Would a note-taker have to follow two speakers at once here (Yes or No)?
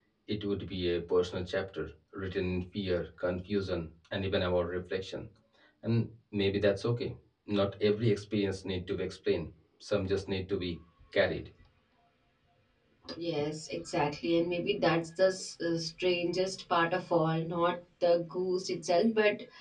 No